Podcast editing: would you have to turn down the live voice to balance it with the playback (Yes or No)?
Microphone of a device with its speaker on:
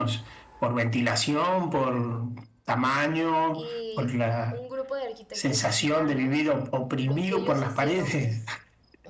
No